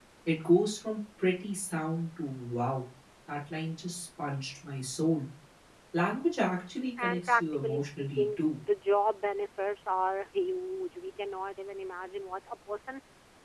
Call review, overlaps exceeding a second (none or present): present